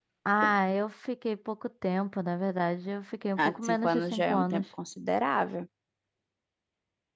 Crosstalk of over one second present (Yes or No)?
Yes